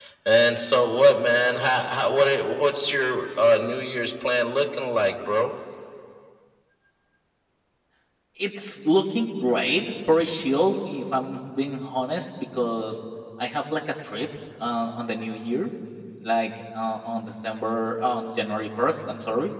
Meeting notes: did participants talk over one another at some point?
No

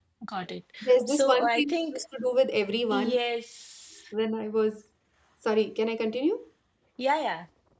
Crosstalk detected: Yes, from 0.8 s

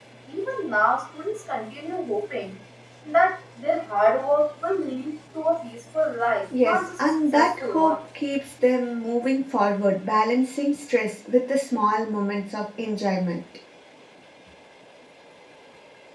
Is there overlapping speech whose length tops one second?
Yes, from 6.5 s

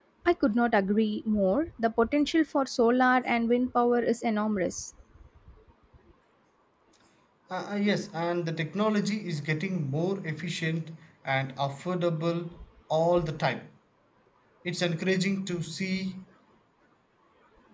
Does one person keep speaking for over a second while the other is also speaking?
No

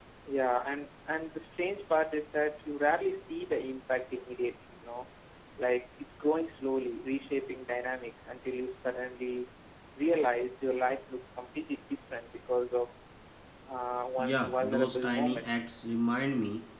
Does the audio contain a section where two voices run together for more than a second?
Yes, from 14.2 s

